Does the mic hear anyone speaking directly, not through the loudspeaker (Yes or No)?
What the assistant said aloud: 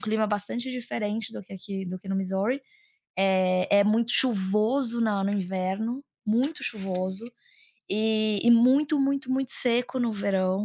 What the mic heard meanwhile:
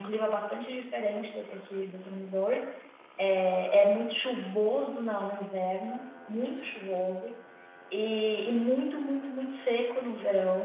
No